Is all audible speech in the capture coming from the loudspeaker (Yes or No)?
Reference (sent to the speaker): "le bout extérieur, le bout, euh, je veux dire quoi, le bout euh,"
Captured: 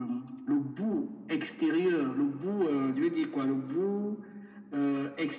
Yes